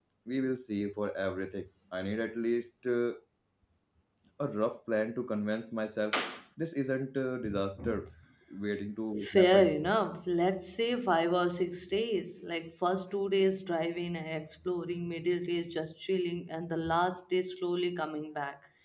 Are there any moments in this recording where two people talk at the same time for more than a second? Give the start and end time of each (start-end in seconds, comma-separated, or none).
none